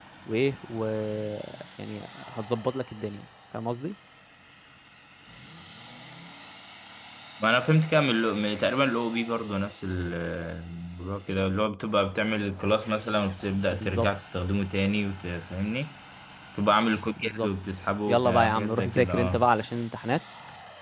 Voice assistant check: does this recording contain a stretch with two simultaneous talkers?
Yes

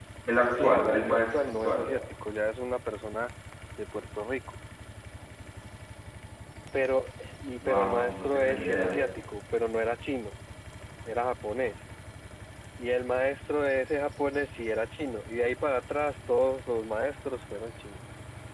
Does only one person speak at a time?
No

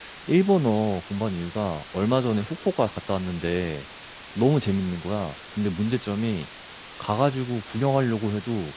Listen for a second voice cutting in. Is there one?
No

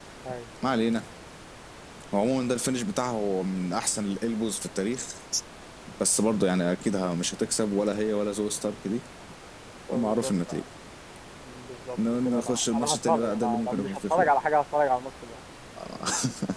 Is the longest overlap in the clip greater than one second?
Yes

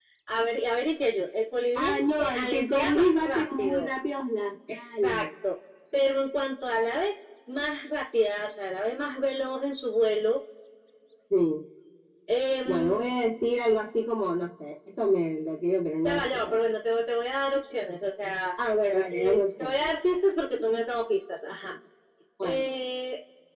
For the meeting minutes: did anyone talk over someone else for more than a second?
Yes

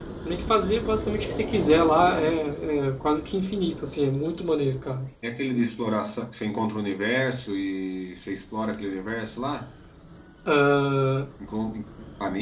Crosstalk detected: No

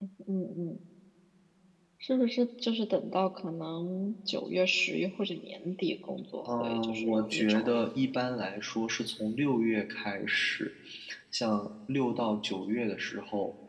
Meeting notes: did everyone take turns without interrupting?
No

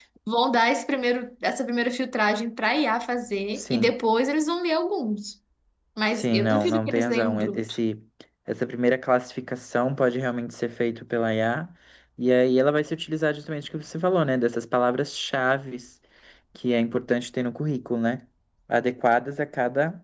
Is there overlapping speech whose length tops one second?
Yes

